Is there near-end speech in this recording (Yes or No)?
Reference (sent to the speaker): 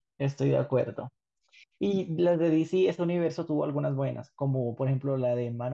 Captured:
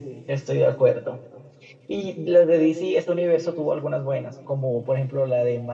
No